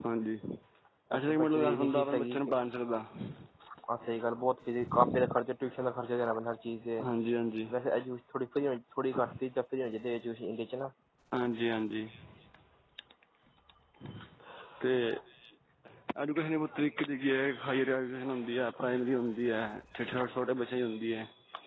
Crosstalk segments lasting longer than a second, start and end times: 1.2-2.4

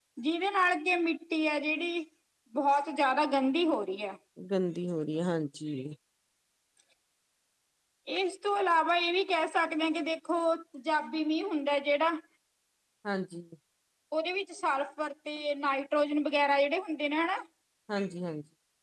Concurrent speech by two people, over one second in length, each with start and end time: none

